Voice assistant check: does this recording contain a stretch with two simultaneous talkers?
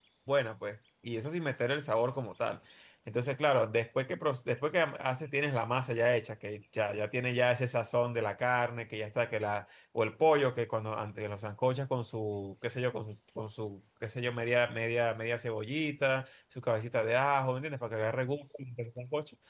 No

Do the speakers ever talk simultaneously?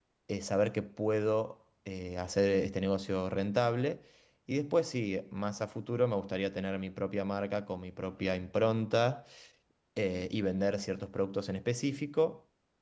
No

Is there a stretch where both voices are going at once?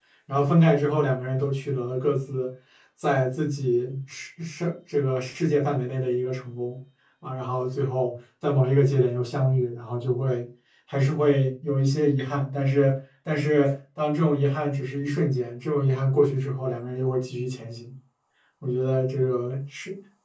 No

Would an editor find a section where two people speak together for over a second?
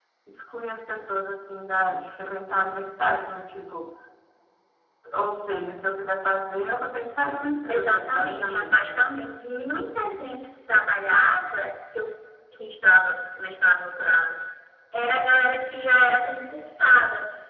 Yes, from 7.7 s

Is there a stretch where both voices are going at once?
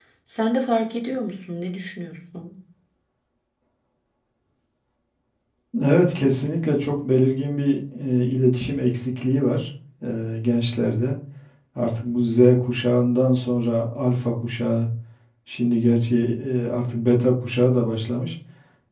No

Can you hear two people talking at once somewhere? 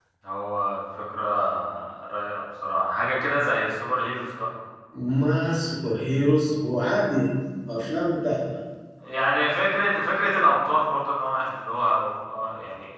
No

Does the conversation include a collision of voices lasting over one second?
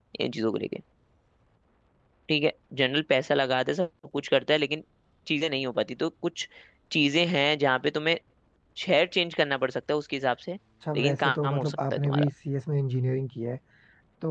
Yes, from 11.0 s

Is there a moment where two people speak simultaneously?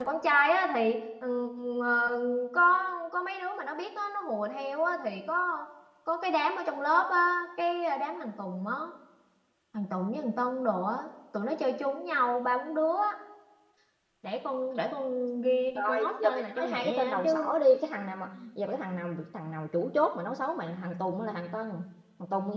Yes, from 15.8 s

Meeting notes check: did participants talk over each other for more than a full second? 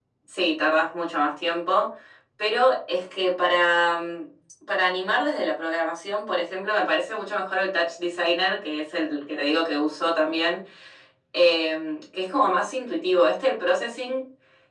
No

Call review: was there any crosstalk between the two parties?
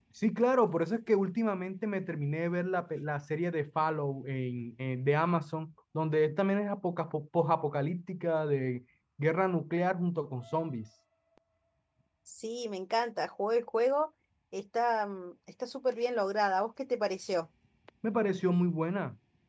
No

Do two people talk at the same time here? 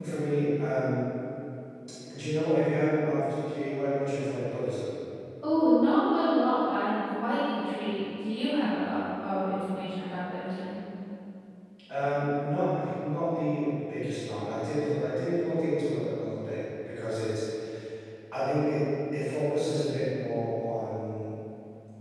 No

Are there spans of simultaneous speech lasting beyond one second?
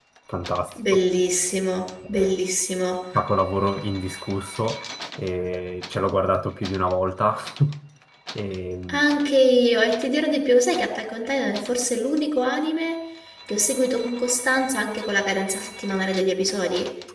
No

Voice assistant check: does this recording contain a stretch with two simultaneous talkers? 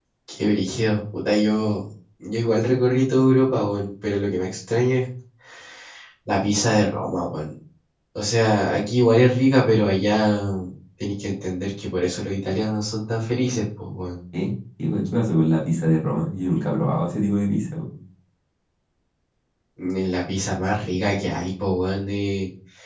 No

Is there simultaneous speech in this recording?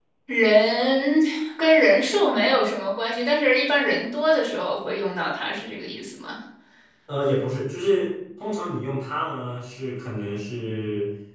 No

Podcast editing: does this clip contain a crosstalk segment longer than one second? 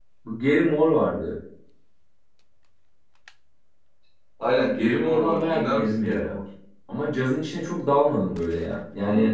Yes, from 4.8 s

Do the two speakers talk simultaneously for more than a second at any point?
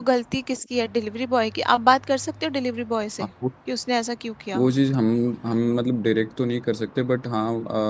No

